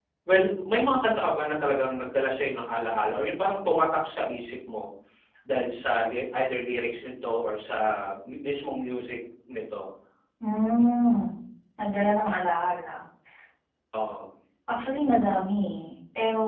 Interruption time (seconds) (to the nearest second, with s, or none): none